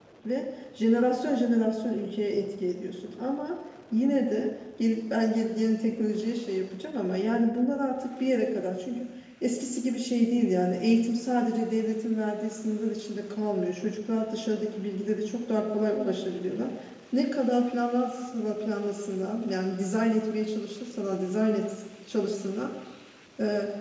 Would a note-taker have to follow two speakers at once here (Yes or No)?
No